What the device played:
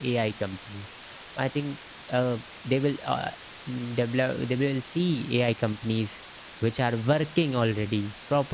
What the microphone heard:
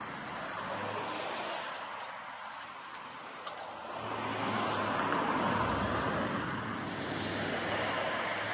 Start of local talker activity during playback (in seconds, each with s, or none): none